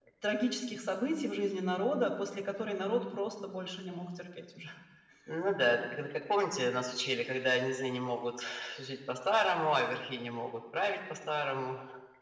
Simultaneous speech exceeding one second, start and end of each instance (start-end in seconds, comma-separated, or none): none